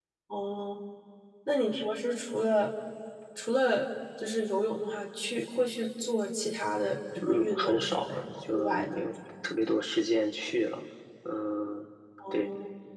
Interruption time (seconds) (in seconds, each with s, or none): 7.2 s